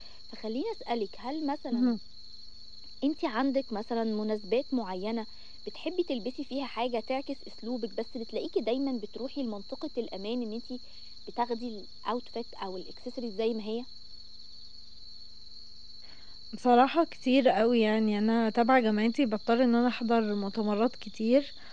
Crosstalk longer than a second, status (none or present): none